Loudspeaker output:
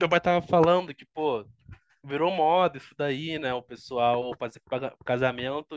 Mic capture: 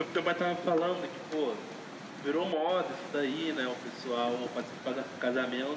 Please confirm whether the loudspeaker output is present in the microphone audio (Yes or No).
Yes